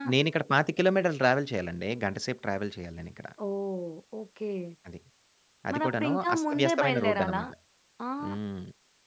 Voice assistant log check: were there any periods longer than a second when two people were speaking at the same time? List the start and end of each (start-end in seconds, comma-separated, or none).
5.7-7.4